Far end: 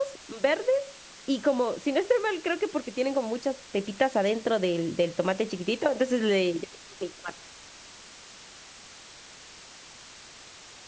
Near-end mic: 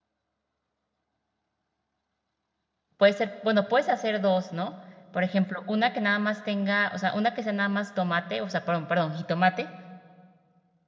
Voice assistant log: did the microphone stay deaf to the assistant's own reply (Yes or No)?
Yes